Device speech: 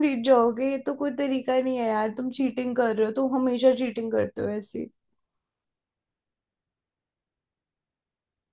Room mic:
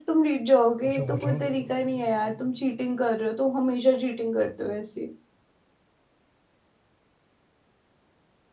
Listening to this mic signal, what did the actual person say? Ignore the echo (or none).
पूछो पूछो